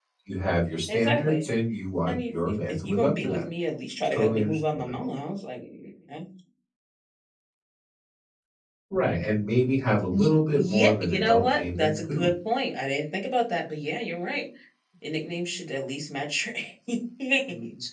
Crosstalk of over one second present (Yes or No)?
Yes